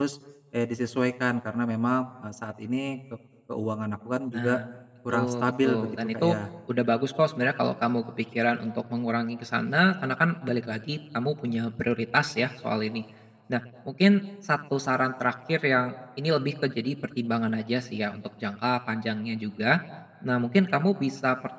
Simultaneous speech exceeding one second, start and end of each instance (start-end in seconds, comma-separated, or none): 5.1-6.3